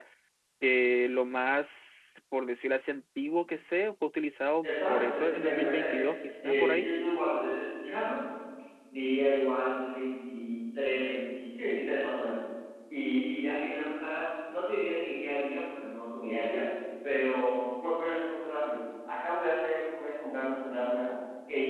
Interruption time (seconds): 4.6 s

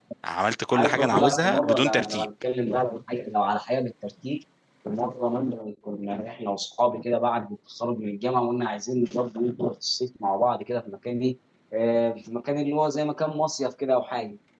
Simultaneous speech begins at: 0.7 s

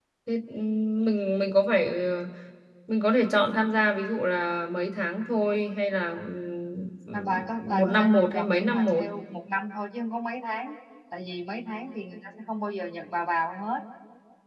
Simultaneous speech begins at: 7.1 s

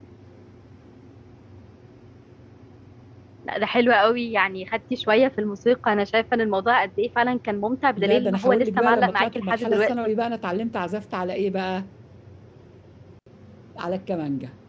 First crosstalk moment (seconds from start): 8.0 s

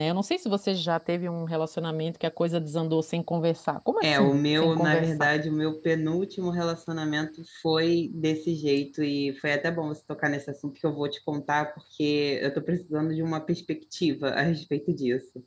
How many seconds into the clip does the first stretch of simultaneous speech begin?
4.0 s

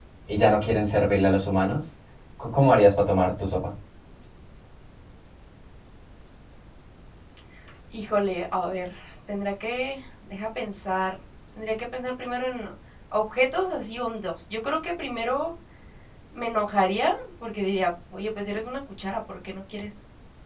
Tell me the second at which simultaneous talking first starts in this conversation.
none

